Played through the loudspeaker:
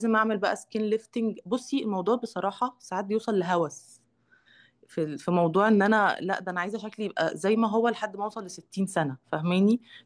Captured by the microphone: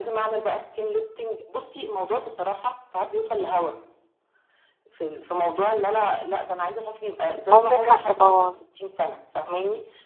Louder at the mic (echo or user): user